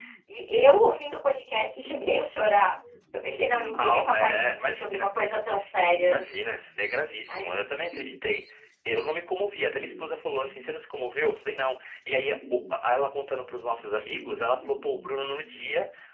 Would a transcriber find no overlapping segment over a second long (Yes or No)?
No